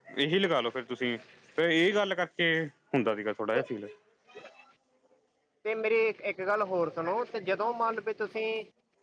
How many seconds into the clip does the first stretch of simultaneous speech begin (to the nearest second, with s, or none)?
none